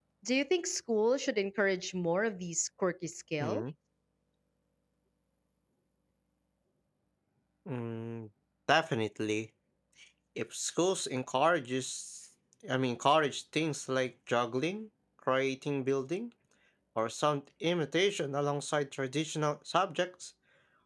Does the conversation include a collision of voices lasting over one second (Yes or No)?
No